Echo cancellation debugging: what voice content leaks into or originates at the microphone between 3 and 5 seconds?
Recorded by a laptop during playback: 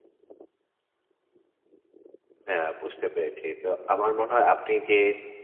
user only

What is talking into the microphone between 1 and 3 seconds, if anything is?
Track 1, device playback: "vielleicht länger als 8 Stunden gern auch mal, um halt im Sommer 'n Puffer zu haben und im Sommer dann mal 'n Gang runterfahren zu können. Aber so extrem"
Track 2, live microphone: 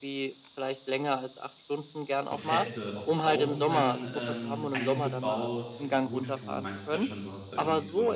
both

